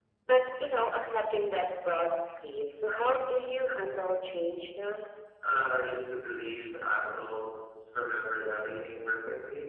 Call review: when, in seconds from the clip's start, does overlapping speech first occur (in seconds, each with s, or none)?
none